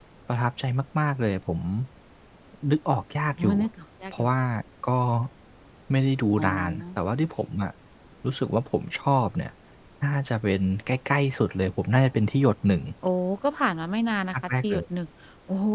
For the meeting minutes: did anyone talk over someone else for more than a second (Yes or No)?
No